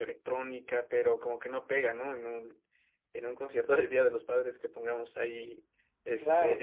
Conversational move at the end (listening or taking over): taking over